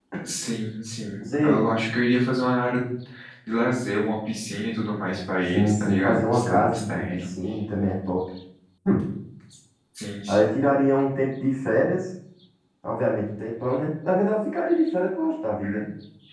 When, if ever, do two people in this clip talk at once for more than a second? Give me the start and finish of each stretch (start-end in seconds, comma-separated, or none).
5.5-7.3